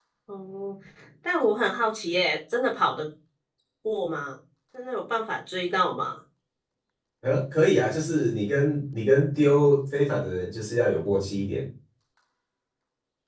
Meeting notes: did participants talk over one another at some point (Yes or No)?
No